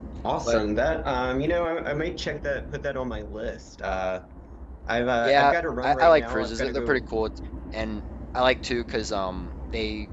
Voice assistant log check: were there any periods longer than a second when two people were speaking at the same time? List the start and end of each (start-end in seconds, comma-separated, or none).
5.2-7.0